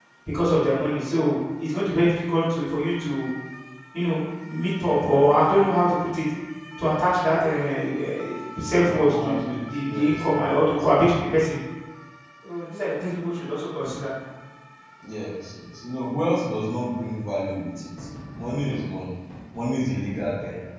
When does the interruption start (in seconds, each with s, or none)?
8.9 s